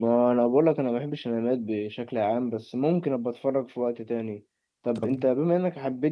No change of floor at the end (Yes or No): Yes